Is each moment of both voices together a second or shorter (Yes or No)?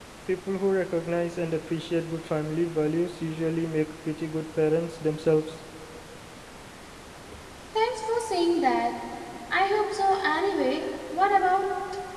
Yes